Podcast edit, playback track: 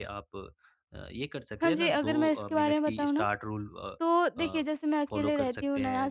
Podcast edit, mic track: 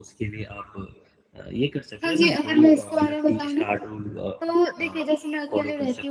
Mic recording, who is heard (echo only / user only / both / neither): echo only